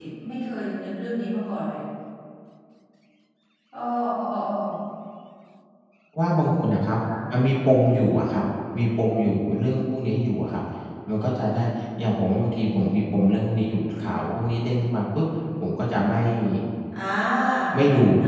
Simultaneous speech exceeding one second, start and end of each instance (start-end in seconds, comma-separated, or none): none